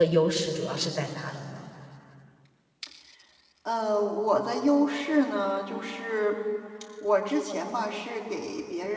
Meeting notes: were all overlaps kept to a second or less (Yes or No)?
Yes